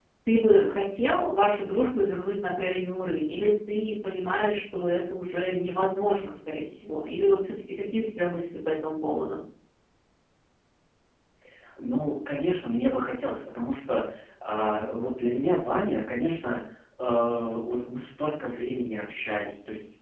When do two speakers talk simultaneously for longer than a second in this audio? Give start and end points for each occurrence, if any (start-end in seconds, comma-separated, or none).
none